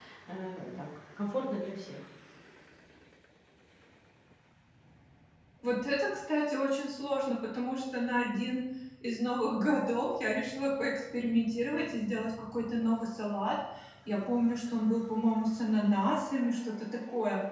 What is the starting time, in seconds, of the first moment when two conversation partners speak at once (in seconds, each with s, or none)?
none